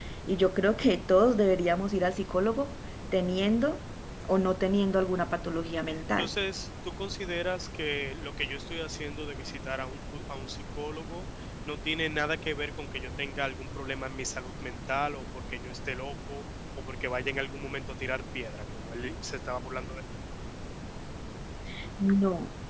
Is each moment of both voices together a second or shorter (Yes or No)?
Yes